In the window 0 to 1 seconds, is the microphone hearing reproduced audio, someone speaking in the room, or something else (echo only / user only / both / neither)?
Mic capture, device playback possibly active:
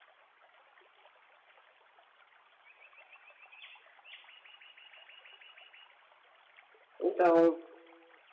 neither